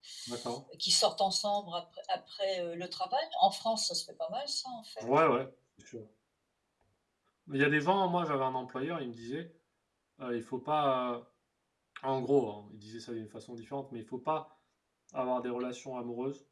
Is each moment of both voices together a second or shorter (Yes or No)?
Yes